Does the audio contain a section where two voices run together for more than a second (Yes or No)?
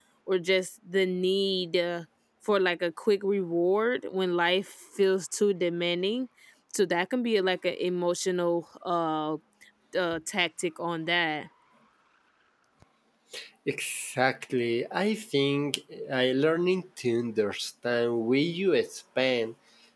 No